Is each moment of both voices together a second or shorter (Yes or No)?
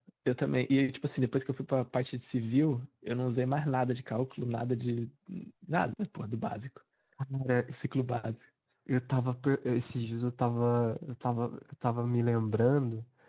Yes